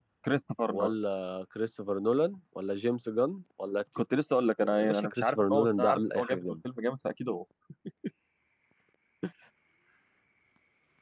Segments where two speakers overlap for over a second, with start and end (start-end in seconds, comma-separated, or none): 4.8-6.6